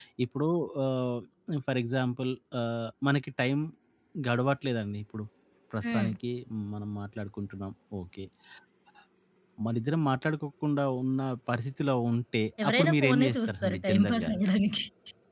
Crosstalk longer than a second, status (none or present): present